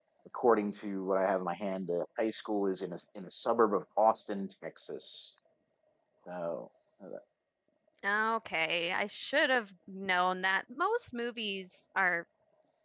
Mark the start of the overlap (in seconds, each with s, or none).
none